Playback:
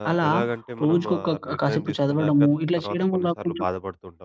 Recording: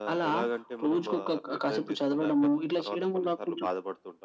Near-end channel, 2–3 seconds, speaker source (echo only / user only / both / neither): echo only